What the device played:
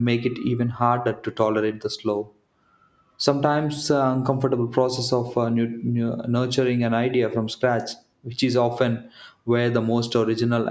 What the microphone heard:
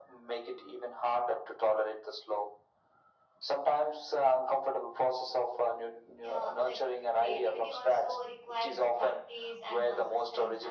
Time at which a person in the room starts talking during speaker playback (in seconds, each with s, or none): 6.2 s